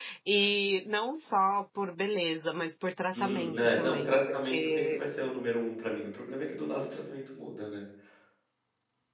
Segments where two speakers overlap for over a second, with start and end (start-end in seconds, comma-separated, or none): 3.1-5.0